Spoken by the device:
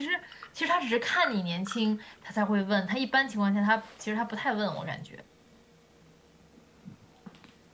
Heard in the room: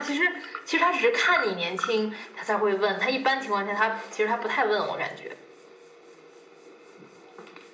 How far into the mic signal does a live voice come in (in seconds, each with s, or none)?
none